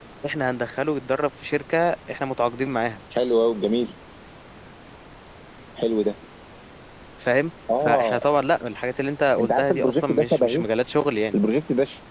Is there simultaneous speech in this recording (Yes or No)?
Yes